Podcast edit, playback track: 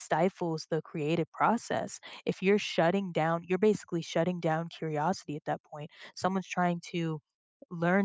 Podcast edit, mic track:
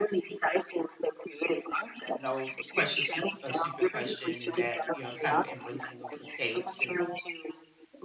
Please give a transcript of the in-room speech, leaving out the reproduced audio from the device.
no question stu a stupid question, and that, you know, it's kind of embracing of mistakes and

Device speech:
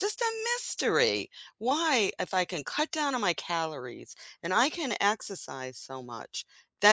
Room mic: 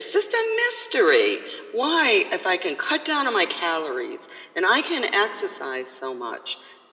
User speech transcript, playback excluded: none

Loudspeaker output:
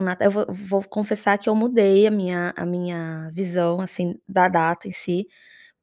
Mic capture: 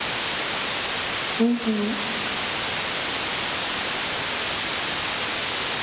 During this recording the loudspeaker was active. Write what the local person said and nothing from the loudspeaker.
Uhum.

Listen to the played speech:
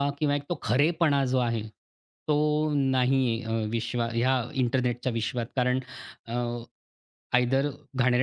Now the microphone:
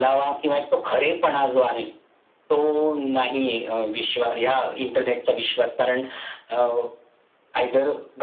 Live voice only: none

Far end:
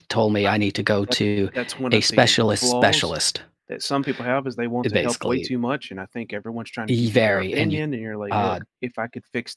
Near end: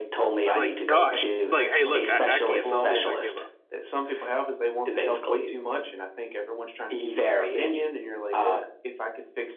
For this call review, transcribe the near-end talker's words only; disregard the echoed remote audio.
It's like, gosh, it's like, "Hey, look, I I can't solve this, I give up."

